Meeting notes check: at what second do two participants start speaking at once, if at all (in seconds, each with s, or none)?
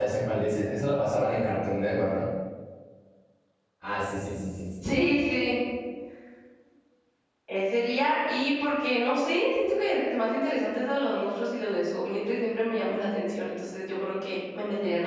none